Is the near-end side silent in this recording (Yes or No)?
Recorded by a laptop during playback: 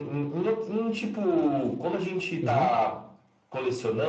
No